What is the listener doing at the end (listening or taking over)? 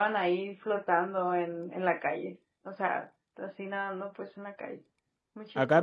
taking over